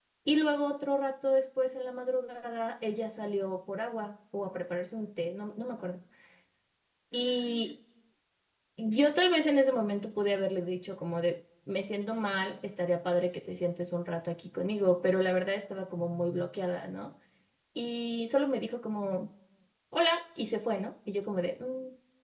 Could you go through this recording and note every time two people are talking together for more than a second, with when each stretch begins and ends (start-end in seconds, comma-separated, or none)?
none